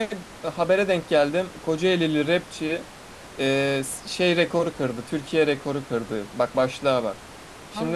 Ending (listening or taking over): listening